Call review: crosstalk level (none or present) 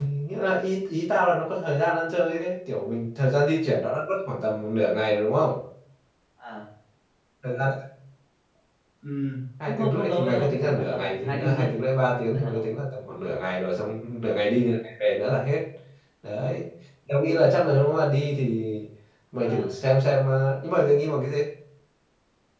present